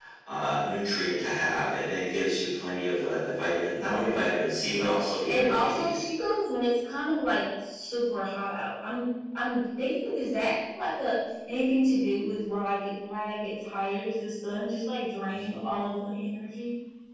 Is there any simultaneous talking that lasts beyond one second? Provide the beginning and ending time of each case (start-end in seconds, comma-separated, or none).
4.6-6.0